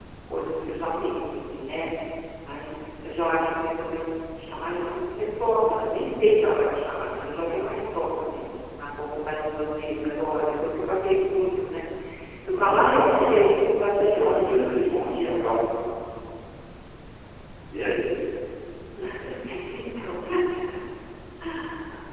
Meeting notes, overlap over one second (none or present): present